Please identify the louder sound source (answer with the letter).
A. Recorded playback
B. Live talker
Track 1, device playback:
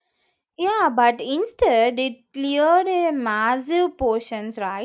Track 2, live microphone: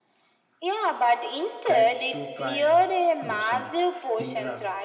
A